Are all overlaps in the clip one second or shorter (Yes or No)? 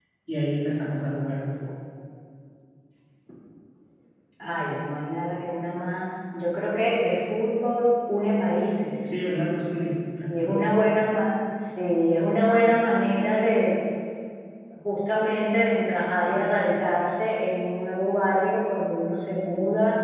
Yes